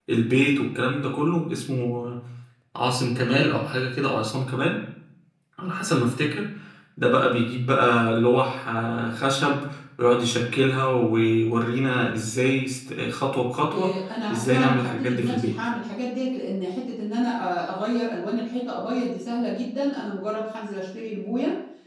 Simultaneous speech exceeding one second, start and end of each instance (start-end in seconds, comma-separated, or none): 14.3-15.5